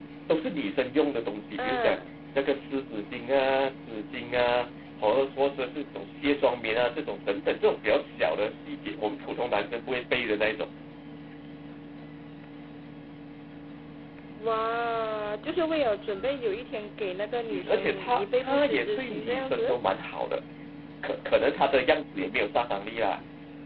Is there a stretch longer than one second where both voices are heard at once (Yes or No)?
Yes